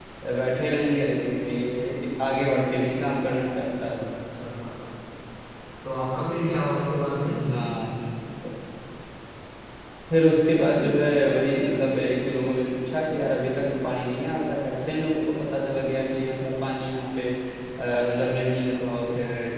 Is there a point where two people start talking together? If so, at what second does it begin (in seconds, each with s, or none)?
none